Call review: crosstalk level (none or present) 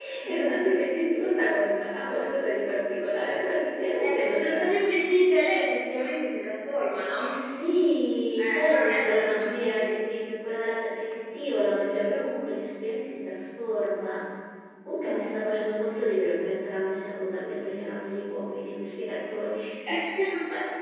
present